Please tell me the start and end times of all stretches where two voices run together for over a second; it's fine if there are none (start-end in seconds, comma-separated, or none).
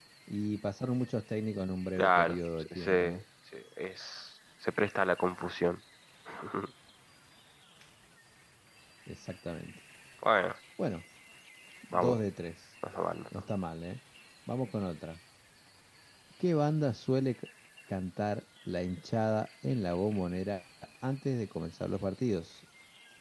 2.0-3.2